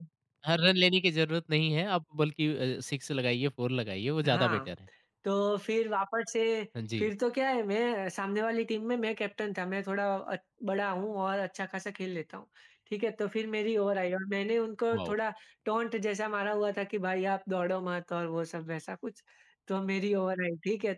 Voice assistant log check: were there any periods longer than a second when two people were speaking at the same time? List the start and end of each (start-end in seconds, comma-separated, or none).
none